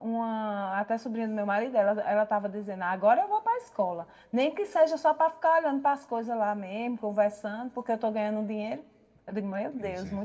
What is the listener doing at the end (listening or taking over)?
listening